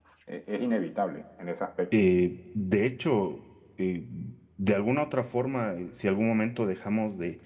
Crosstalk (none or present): none